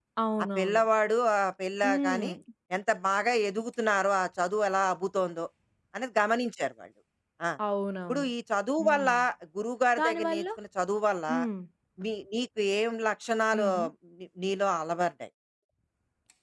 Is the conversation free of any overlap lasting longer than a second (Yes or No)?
Yes